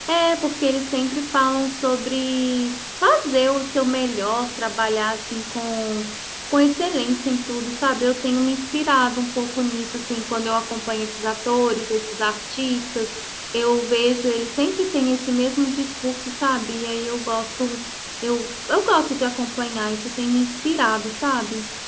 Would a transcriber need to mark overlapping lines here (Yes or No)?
No